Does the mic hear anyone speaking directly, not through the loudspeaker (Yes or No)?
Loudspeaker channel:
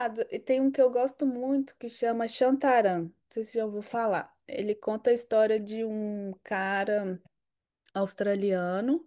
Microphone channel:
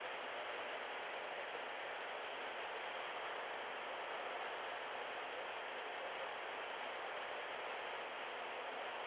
No